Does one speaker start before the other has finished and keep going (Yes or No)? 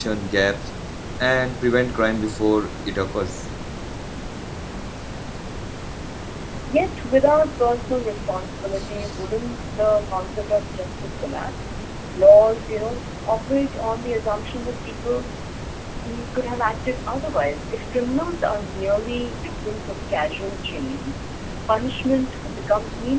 No